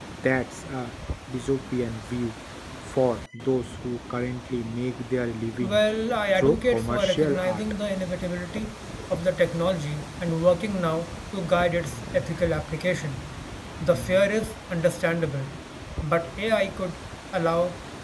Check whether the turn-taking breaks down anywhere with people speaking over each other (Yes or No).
Yes